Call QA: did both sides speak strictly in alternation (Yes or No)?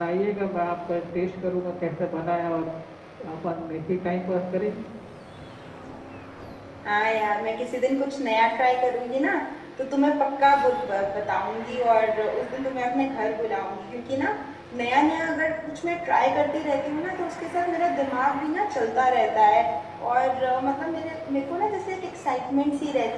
Yes